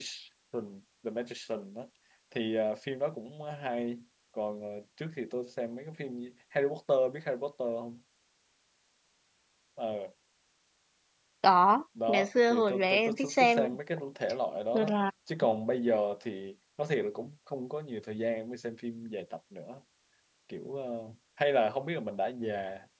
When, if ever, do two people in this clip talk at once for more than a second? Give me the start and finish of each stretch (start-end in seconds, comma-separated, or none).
12.1-13.6